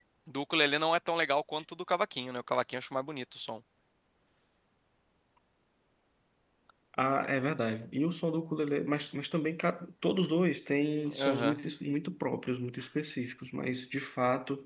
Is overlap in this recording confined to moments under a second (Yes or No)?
Yes